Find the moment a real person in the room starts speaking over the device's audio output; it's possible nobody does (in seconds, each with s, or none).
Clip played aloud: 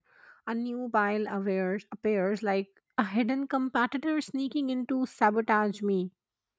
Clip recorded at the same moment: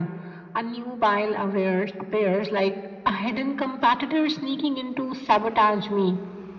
none